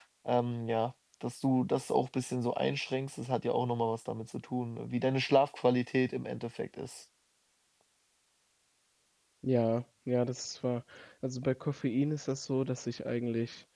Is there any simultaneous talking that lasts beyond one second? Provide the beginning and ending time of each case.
none

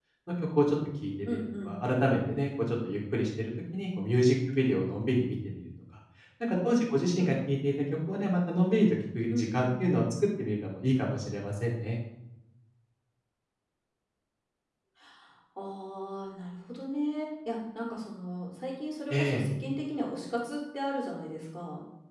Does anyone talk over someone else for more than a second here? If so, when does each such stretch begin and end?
none

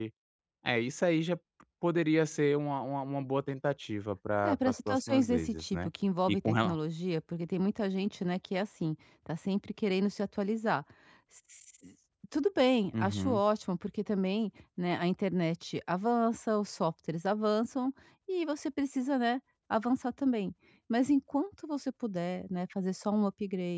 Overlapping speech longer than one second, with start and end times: 4.4-5.9

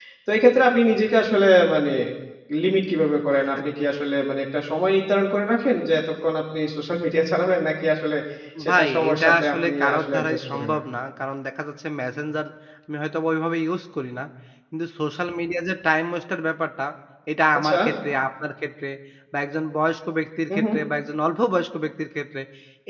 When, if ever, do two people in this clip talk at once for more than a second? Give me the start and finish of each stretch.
8.7-10.8

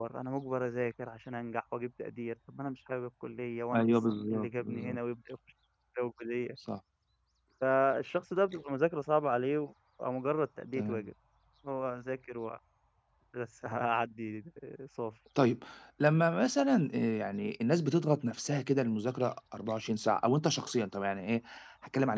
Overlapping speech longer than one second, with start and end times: 3.7-5.0

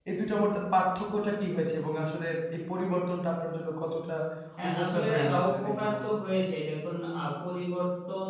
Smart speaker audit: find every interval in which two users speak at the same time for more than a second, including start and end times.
4.7-6.0

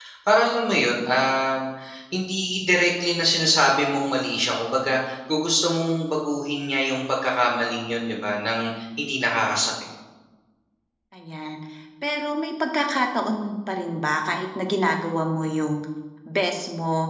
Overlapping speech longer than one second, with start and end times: none

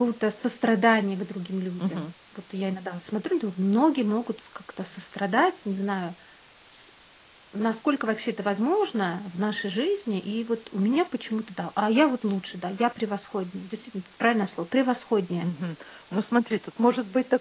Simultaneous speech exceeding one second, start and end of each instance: none

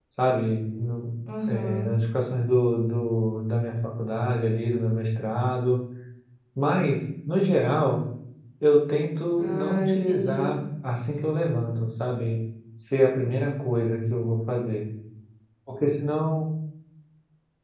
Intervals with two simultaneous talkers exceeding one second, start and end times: 9.4-10.6

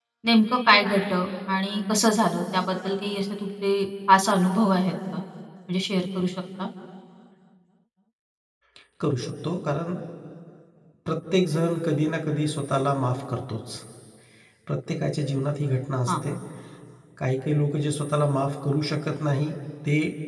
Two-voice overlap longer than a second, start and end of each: none

